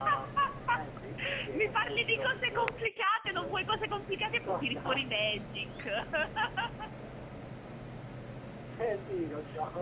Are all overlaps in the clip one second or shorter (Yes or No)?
No